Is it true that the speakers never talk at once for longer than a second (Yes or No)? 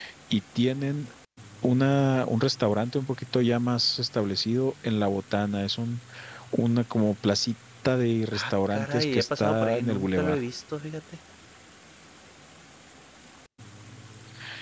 No